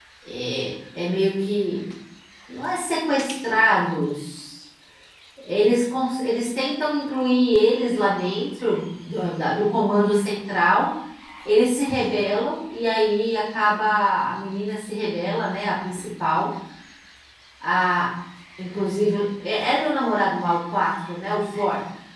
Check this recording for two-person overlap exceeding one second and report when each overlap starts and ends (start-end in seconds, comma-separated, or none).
none